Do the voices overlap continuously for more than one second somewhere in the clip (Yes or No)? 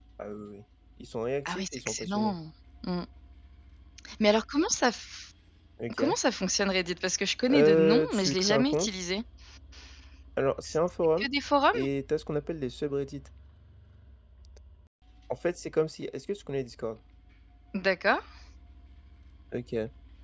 Yes